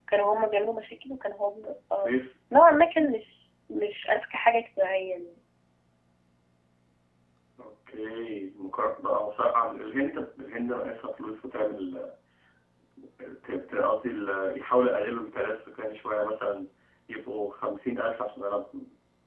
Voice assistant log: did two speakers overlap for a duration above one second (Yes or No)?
No